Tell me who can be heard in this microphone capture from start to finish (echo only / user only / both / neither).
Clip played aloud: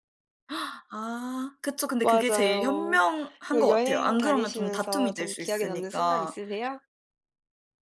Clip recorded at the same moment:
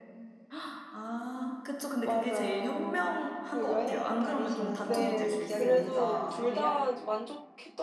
both